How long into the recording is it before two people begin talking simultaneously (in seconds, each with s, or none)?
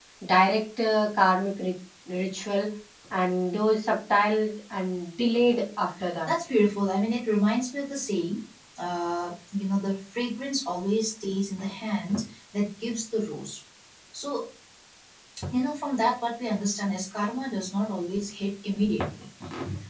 none